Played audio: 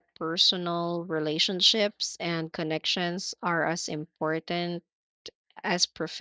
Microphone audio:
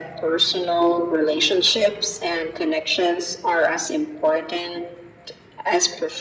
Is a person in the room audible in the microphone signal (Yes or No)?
No